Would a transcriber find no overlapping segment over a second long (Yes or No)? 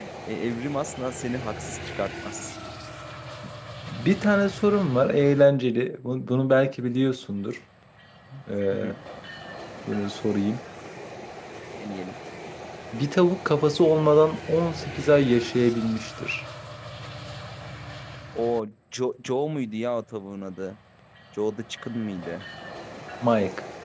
Yes